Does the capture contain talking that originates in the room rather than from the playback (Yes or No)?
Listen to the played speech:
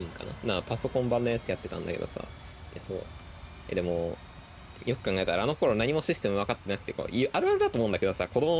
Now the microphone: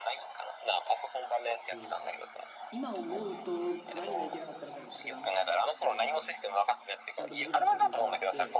Yes